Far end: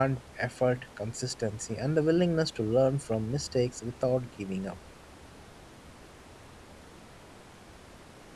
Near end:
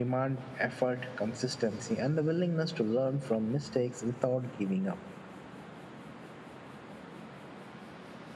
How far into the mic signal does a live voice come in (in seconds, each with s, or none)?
none